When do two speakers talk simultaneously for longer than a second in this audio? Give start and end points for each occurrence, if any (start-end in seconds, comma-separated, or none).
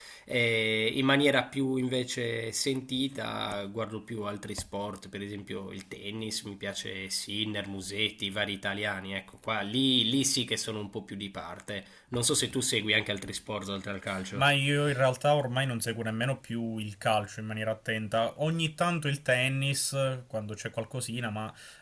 none